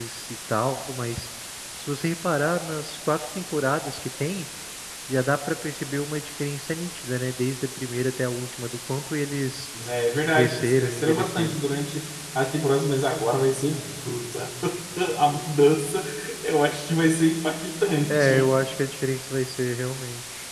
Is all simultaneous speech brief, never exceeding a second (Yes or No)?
No